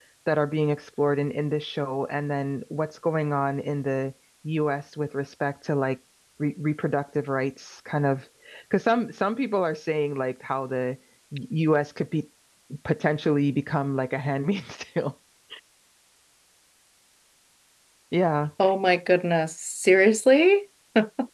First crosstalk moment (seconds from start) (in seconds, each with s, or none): none